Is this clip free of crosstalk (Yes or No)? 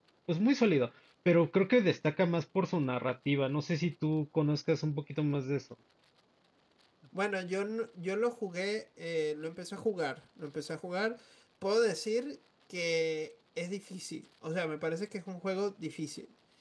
Yes